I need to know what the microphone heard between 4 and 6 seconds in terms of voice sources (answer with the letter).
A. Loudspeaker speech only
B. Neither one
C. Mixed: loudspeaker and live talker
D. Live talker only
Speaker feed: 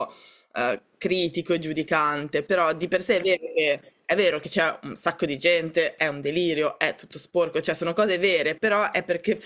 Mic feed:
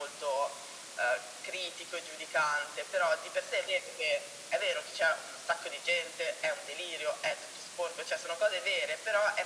A